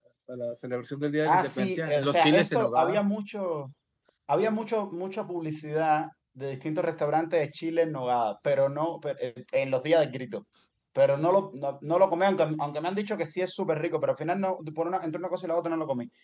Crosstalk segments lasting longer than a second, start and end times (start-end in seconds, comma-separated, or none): 1.3-3.0